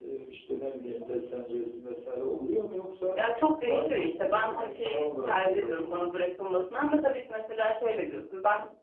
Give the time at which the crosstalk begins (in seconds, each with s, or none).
3.6 s